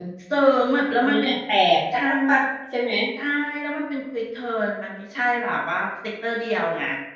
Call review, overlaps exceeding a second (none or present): none